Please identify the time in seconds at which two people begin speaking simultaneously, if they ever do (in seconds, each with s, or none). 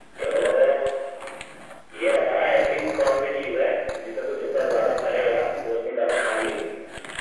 none